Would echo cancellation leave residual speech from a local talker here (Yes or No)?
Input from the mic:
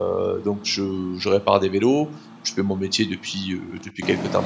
Yes